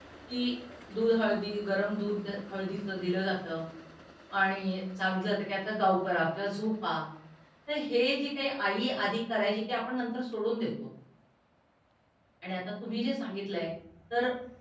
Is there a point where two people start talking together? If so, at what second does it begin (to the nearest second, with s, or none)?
none